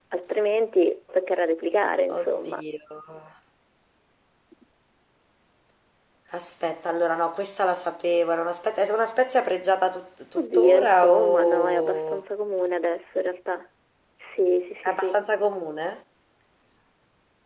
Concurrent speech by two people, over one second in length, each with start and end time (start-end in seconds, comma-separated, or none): 10.4-12.2